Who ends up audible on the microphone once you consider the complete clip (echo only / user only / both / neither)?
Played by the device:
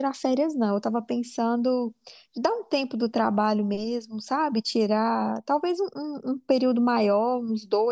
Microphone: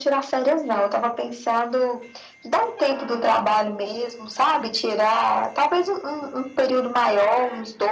echo only